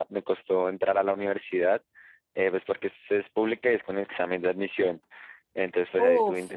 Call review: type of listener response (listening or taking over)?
listening